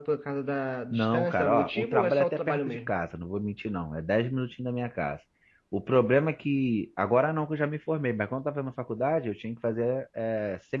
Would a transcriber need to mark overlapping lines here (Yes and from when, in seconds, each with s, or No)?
Yes, from 0.9 s